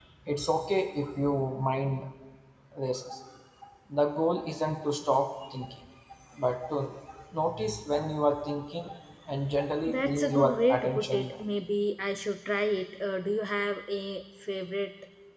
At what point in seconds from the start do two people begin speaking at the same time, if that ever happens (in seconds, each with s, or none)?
9.9 s